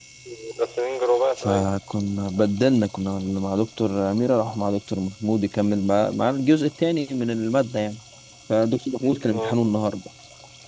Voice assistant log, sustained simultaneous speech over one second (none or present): none